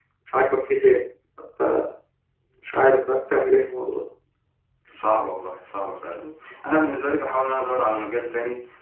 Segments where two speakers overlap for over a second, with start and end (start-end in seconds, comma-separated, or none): none